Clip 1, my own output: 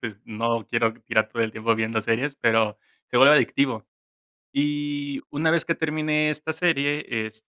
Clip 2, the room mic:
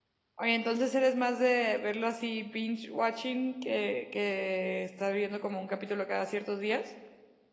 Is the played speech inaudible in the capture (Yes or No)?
Yes